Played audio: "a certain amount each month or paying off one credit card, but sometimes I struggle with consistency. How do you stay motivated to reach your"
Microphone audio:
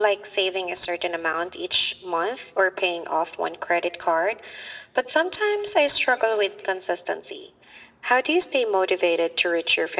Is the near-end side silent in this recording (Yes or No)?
Yes